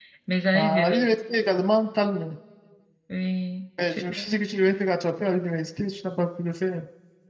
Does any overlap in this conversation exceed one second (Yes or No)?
No